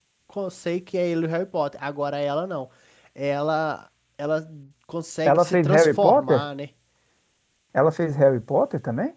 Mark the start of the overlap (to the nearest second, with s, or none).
5 s